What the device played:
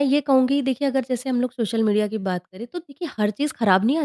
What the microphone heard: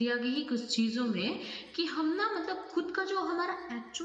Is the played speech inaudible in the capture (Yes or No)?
Yes